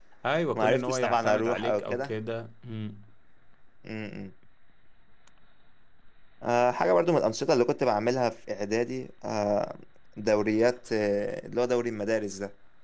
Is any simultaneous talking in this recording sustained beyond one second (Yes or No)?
Yes